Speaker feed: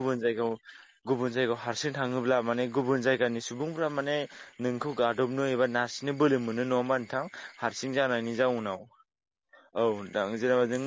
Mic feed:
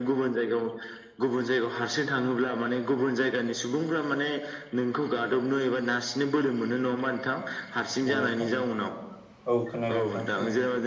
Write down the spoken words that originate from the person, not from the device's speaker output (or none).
औ नोंथां औ औ खोनादों नोंथां खोनादों